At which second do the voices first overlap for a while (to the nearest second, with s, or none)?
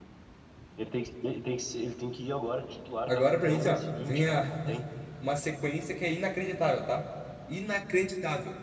3 s